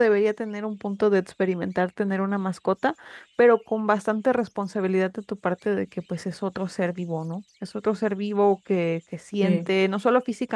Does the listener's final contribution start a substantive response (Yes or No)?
No